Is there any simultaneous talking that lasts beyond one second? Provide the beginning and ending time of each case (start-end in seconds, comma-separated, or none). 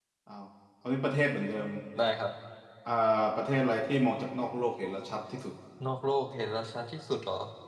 none